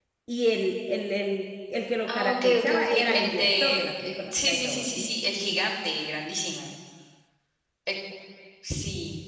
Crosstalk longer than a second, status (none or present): present